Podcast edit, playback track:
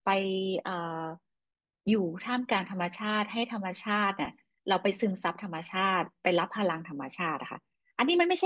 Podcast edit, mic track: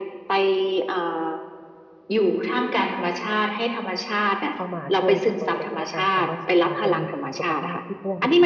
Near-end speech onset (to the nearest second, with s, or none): 5 s